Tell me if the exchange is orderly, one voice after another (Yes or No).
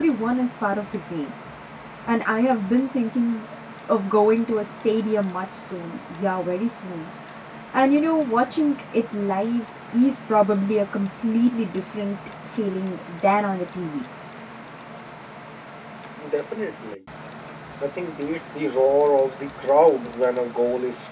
Yes